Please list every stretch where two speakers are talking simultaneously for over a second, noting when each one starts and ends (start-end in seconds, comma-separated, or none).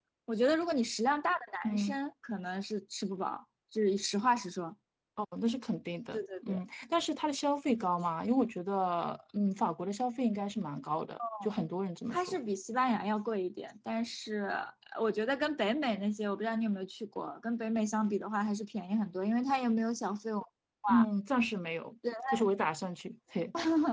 none